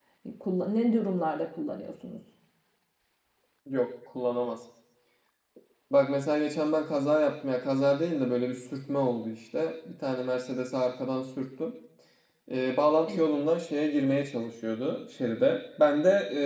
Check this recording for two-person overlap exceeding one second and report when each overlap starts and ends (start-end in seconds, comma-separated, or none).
none